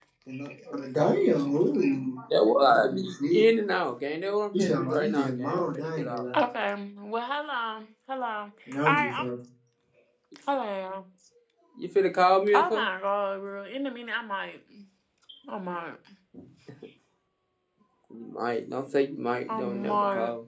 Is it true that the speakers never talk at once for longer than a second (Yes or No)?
No